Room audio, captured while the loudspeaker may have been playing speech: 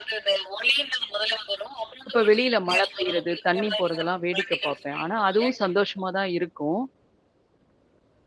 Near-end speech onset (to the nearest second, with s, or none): 2 s